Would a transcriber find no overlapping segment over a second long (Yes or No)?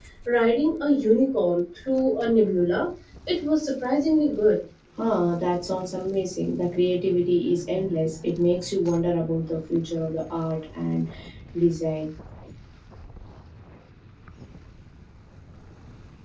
Yes